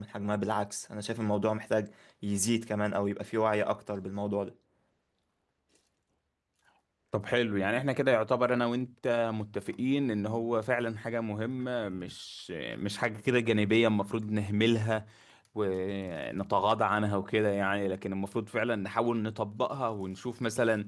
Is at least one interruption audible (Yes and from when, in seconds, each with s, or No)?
No